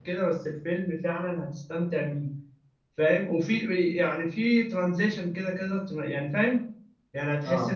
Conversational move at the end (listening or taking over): listening